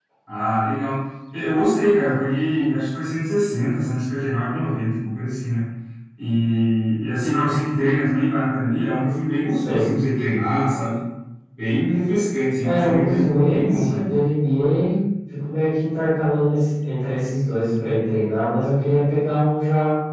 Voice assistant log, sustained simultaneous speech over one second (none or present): present